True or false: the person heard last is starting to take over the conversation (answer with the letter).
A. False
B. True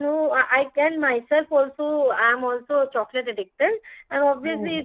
A